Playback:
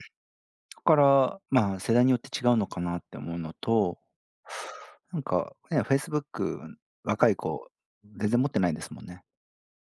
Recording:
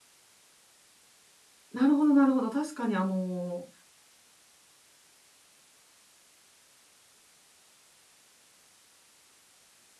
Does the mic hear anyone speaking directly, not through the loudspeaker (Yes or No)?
Yes